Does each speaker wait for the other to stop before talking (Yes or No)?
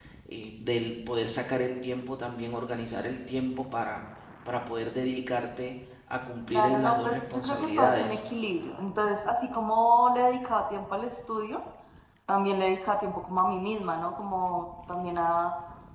No